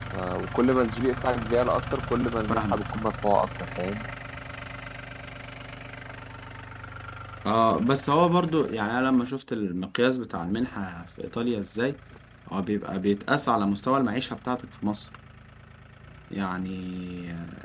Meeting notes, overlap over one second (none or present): none